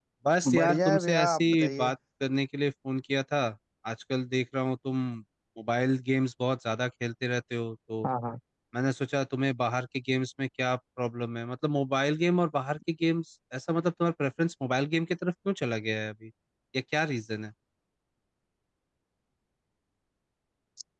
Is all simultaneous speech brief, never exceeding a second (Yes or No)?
No